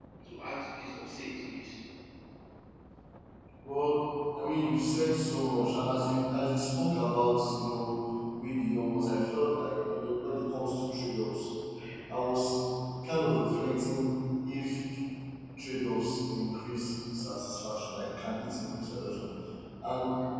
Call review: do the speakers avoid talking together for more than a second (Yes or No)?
Yes